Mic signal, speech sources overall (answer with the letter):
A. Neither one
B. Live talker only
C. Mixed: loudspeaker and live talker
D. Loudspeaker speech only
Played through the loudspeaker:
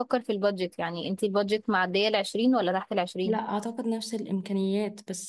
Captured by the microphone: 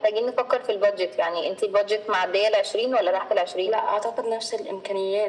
D